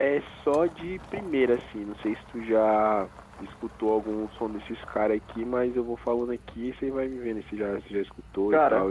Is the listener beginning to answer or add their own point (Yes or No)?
Yes